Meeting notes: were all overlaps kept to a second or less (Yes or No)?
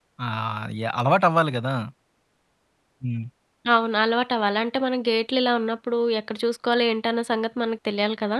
Yes